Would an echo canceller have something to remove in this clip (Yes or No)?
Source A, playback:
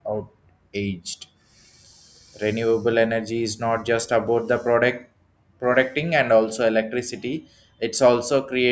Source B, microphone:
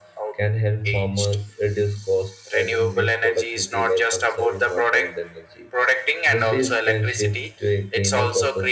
Yes